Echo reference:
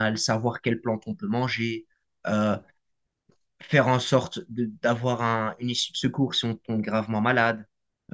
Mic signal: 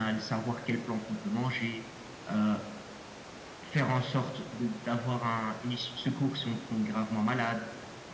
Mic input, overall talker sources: echo only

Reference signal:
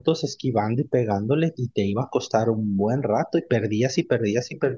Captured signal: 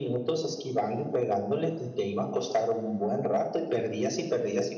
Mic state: echo only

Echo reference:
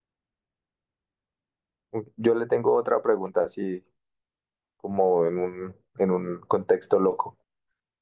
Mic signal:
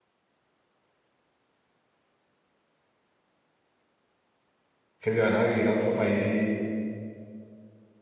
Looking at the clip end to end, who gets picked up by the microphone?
user only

